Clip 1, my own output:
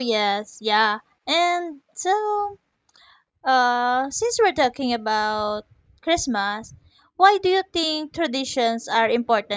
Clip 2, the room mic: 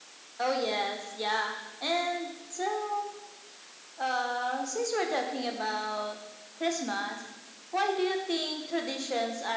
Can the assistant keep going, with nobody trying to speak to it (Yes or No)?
Yes